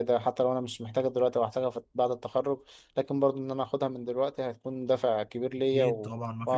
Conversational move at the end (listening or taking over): taking over